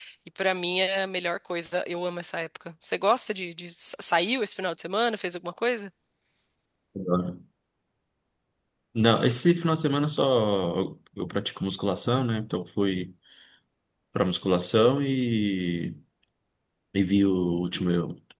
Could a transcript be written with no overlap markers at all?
Yes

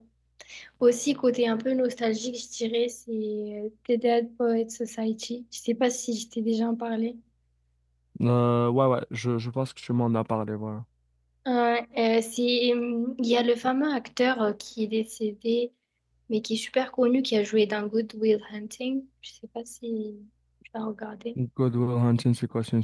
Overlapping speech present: No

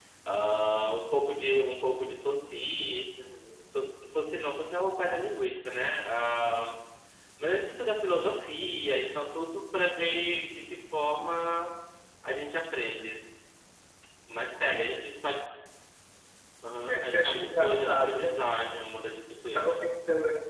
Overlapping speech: Yes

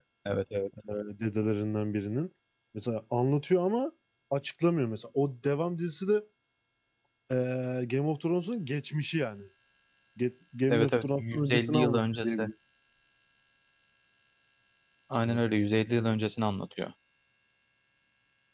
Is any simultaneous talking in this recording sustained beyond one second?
Yes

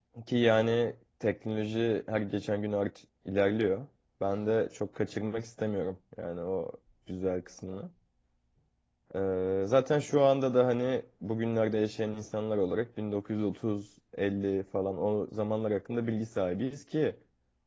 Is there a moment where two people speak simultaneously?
No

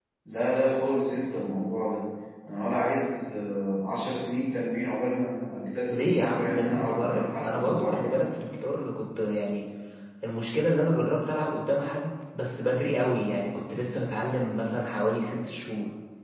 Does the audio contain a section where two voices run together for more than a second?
Yes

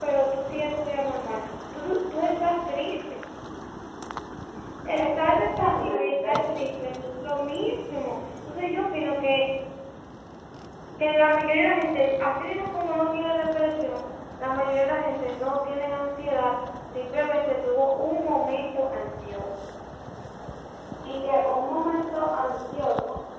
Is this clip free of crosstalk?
No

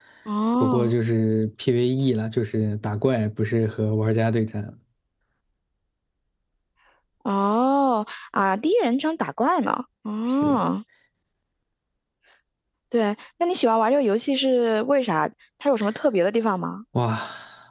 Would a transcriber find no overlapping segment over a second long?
Yes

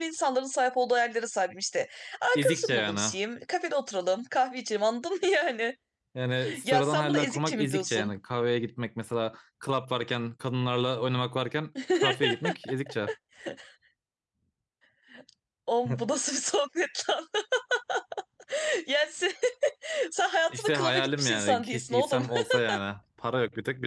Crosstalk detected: Yes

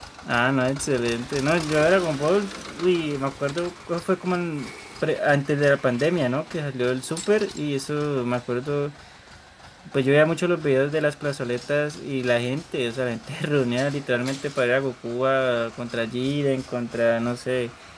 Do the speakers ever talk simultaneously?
No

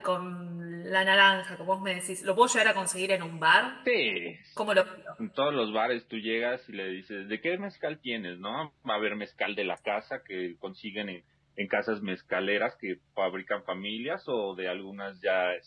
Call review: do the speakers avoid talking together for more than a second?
Yes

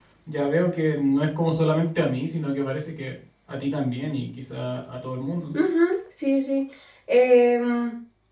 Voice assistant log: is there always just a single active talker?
Yes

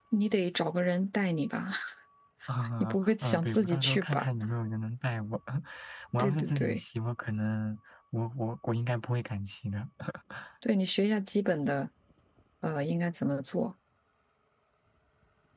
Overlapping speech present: Yes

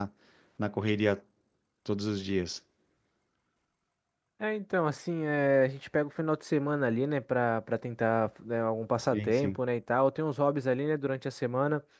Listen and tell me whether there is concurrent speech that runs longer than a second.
No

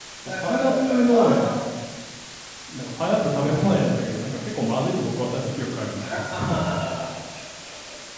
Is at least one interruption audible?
Yes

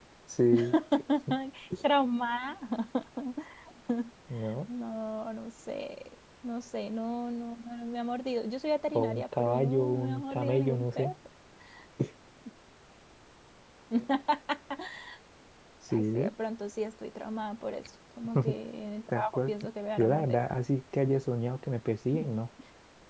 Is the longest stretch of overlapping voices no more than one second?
No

